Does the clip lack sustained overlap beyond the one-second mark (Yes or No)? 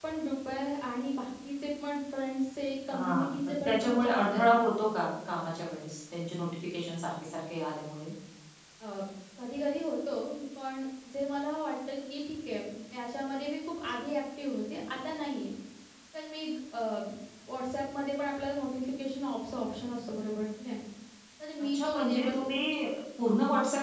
No